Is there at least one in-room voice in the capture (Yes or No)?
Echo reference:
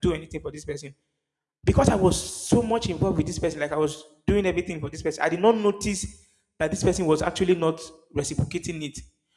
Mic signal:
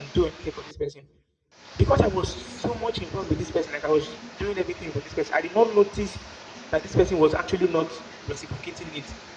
No